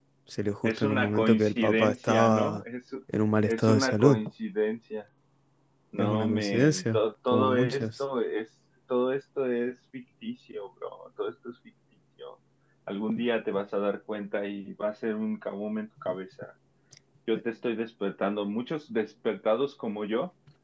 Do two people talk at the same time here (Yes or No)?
Yes